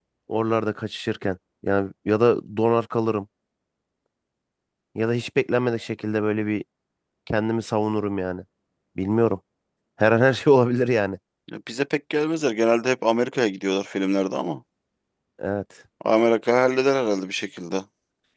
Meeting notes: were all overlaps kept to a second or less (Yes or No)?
Yes